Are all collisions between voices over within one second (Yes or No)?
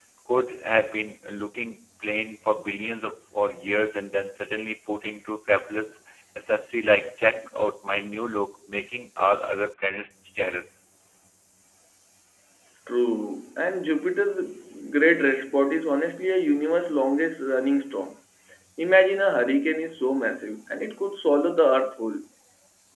Yes